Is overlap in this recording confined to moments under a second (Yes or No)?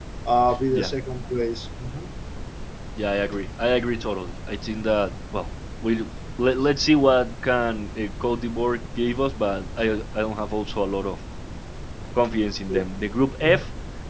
Yes